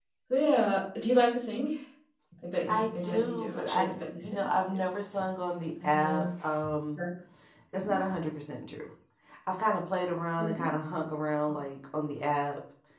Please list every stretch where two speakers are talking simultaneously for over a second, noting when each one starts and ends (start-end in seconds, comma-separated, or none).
2.7-4.8